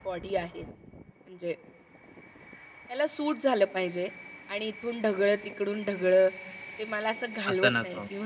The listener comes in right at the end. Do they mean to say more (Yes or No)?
No